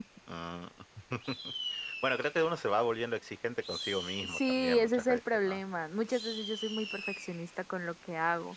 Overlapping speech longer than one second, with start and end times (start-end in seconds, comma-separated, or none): 4.2-5.6